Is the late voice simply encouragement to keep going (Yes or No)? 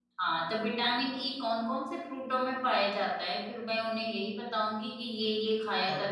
No